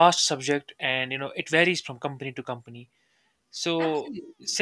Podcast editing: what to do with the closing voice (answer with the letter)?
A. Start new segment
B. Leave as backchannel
B